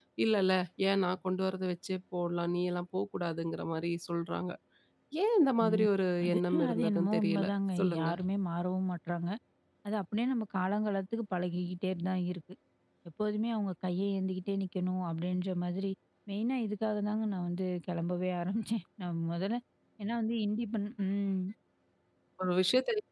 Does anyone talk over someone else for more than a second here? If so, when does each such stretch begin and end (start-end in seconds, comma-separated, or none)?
6.2-8.1